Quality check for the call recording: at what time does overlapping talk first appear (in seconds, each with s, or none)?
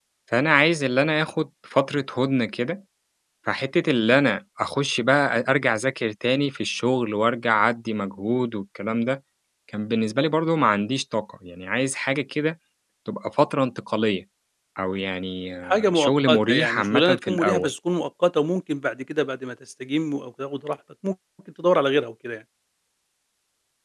15.7 s